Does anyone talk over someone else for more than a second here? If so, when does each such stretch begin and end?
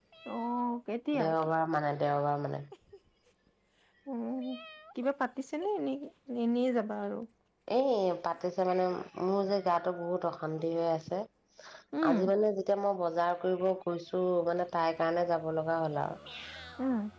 none

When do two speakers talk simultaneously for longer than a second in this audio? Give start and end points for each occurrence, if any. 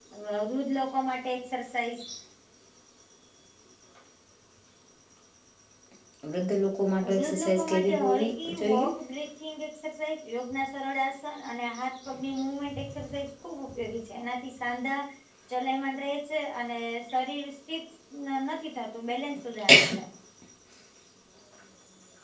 7.2-8.9

